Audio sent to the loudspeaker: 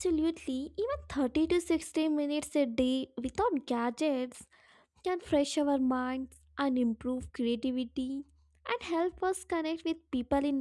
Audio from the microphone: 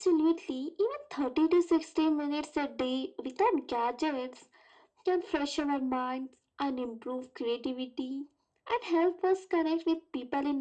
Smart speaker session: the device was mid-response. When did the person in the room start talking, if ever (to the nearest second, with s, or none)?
none